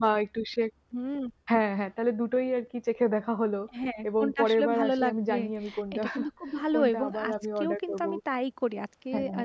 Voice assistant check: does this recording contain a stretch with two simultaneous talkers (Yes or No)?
Yes